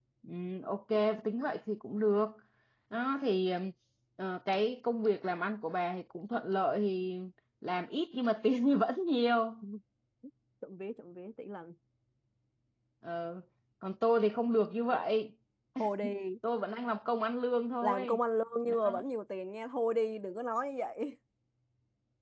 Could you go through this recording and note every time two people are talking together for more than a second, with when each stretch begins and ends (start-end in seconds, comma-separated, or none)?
none